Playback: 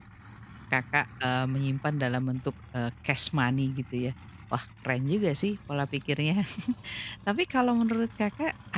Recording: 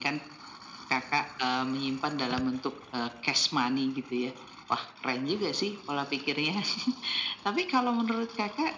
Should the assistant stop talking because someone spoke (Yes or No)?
No